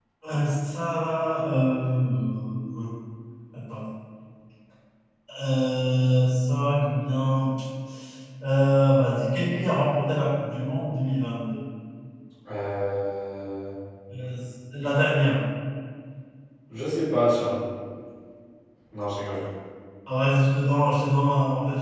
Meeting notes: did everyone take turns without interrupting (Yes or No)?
Yes